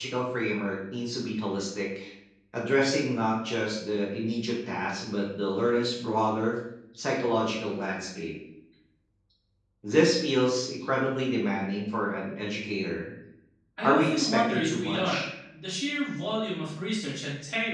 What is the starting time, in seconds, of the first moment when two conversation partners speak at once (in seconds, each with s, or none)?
13.8 s